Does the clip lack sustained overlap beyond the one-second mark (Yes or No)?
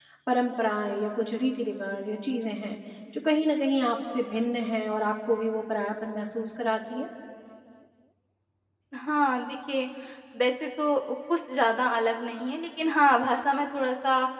Yes